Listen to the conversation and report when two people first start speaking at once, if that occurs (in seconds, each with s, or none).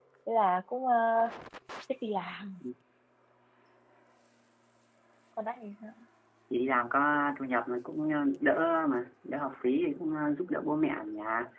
none